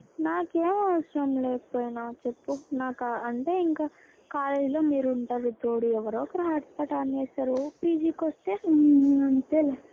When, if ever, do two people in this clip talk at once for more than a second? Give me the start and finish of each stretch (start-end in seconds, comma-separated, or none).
none